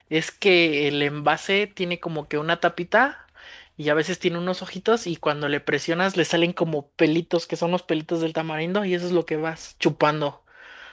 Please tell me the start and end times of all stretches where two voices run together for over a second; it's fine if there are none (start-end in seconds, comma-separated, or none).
none